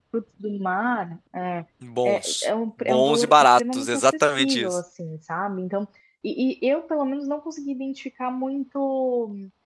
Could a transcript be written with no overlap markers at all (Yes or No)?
No